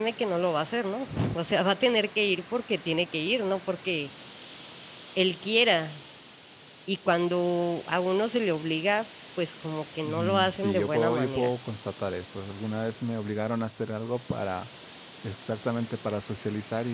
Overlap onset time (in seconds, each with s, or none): 10.0 s